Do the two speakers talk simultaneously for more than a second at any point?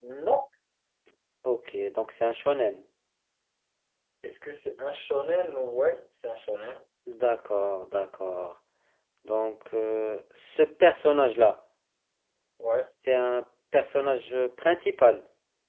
No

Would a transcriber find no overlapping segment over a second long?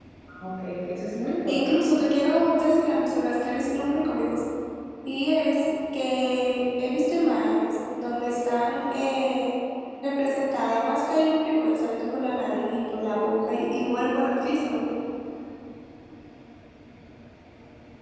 Yes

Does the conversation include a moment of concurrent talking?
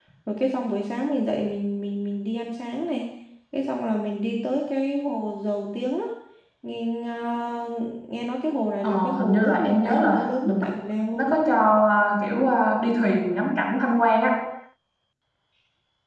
Yes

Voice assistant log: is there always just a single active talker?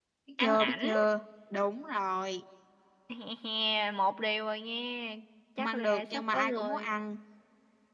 No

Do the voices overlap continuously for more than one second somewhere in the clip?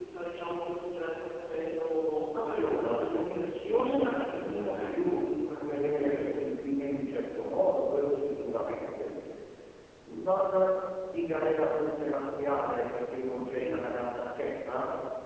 Yes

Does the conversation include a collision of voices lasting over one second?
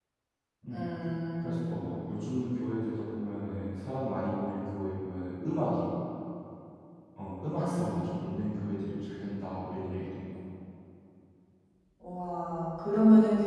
No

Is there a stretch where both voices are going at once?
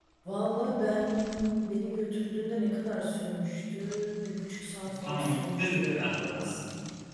Yes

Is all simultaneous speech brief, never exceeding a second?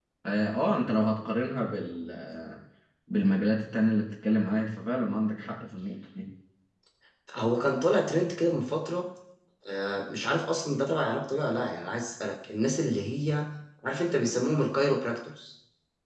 Yes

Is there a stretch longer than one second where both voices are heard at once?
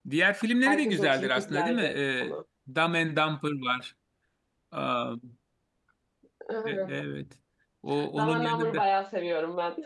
Yes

